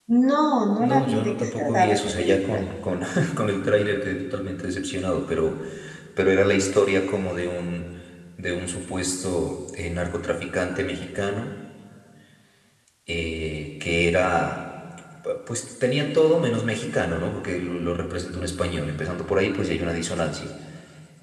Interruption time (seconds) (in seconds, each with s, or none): 0.8 s